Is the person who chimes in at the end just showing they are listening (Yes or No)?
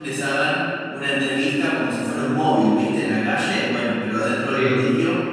Yes